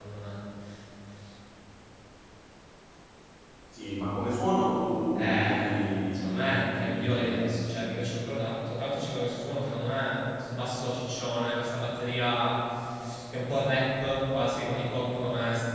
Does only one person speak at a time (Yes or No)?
No